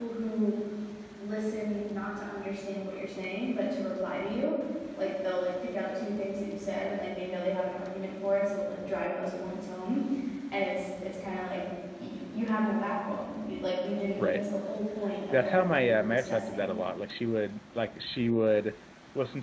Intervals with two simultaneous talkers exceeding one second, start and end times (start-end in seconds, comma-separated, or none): 15.3-16.7